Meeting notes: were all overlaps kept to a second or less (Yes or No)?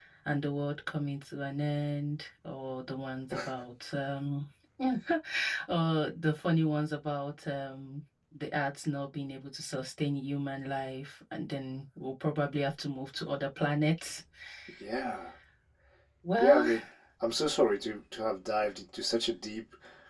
Yes